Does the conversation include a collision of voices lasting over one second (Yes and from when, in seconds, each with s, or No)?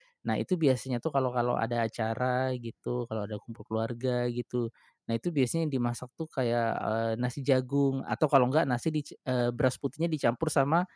No